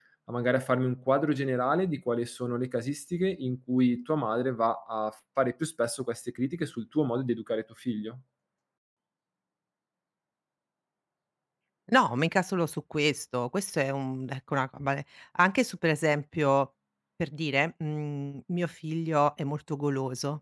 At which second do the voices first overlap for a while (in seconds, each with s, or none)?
none